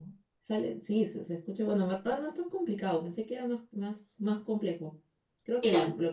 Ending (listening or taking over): listening